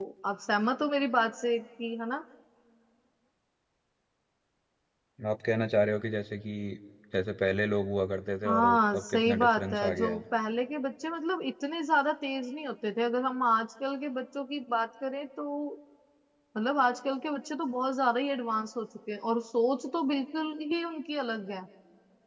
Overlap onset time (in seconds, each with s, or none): 8.4 s